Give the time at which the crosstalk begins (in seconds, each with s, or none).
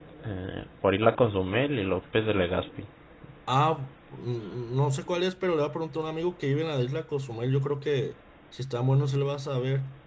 none